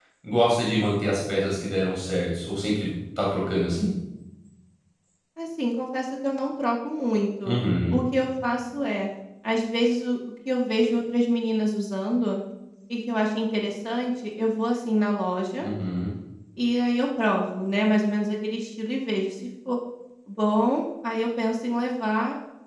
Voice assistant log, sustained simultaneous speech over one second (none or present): none